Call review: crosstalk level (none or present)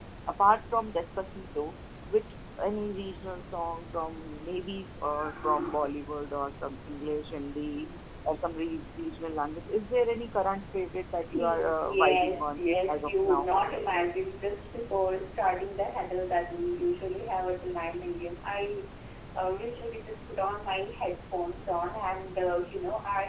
present